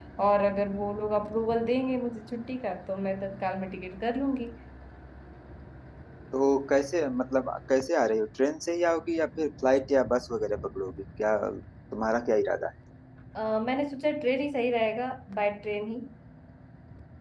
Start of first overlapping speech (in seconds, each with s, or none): none